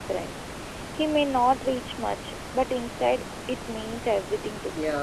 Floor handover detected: Yes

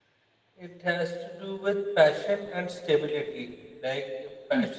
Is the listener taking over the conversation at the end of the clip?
No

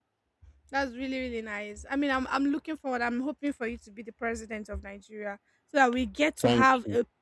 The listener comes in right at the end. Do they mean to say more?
No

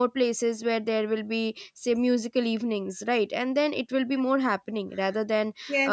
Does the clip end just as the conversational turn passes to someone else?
Yes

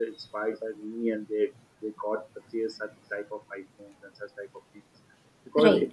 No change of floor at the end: Yes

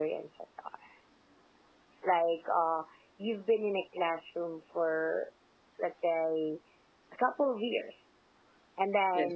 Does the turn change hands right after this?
No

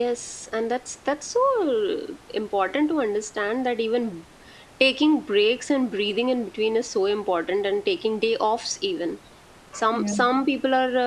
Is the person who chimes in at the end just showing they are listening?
Yes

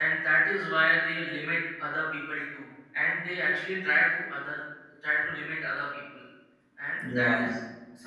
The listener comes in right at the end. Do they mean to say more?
No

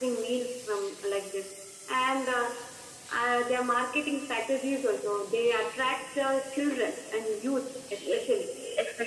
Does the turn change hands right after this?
Yes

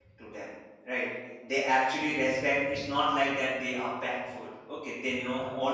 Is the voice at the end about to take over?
No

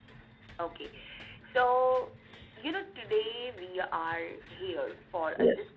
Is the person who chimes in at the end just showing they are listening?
Yes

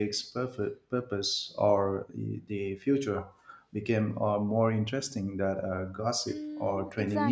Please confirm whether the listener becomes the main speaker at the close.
Yes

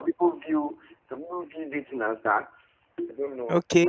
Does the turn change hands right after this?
Yes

